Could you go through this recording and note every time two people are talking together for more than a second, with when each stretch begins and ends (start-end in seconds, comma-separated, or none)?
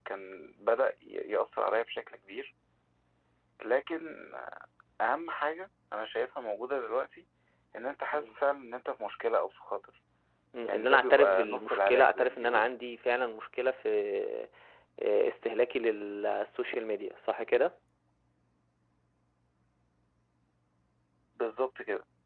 10.6-12.7